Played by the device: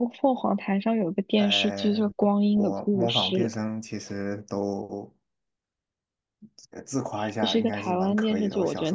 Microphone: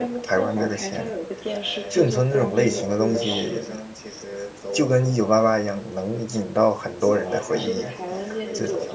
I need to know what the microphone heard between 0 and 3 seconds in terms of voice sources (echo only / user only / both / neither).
both